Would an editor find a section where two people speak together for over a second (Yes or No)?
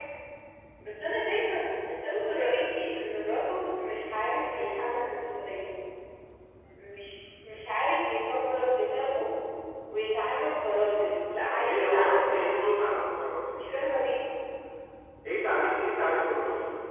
Yes